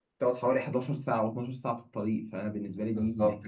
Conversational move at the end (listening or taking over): taking over